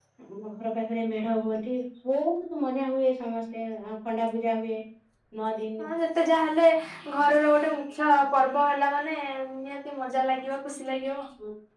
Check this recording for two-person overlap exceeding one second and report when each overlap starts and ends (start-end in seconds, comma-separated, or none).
none